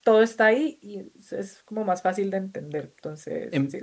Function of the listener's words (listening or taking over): taking over